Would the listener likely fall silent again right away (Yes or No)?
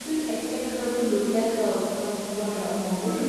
Yes